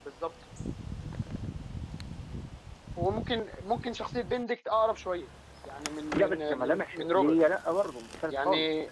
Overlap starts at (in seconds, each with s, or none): 6.1 s